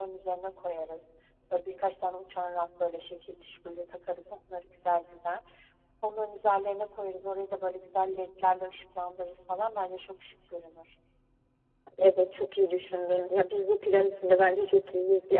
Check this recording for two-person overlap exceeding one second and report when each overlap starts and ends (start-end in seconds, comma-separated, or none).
none